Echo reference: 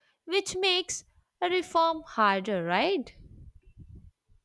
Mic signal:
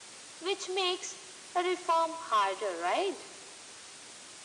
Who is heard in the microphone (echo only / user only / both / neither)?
echo only